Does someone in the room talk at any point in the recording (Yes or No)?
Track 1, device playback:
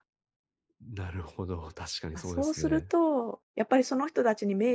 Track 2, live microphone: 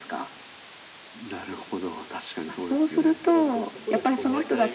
Yes